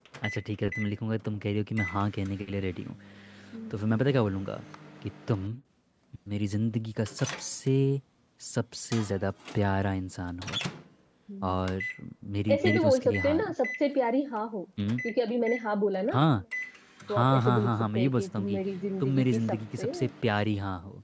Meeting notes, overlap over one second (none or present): present